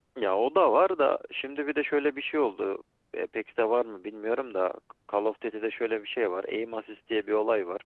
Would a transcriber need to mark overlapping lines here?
No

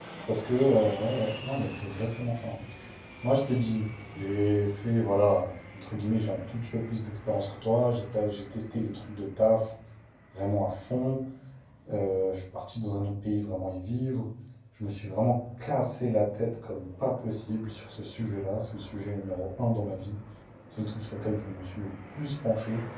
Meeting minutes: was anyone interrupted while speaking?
No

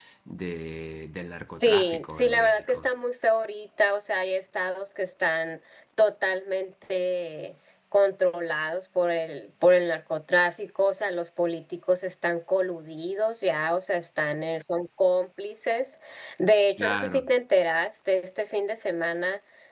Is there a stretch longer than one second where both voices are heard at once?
Yes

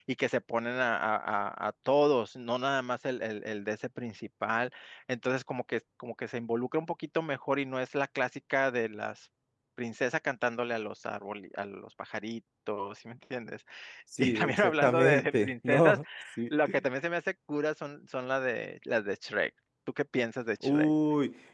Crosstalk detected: Yes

